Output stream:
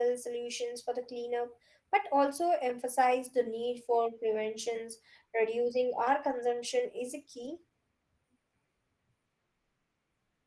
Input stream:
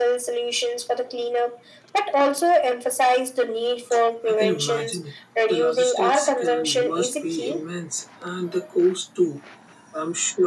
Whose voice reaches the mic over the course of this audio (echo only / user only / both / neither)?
both